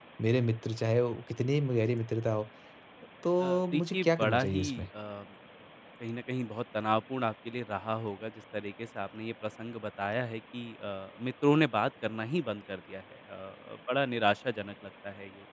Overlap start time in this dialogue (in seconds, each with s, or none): 3.4 s